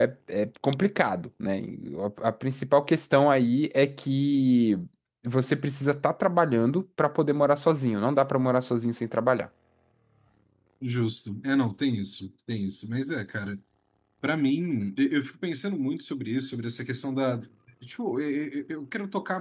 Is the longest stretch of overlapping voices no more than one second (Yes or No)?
Yes